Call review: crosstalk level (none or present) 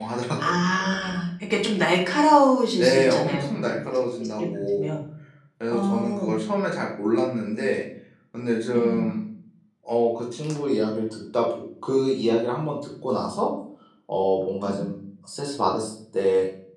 present